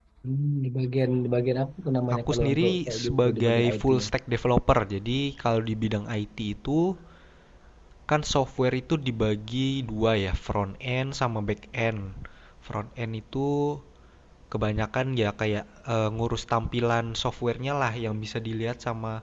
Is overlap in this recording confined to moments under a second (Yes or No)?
No